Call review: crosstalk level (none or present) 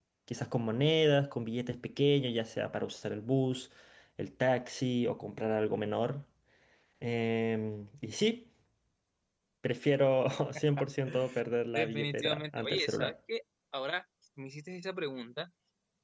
present